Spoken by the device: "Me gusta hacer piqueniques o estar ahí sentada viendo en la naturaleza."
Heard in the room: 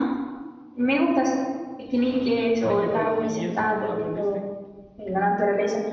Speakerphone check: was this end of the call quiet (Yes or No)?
No